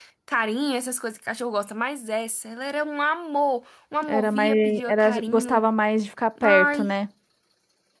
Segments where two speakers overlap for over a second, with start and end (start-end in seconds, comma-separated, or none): 4.0-5.6